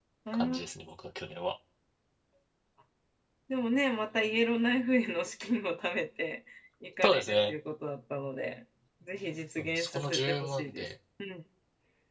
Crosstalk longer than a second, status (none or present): present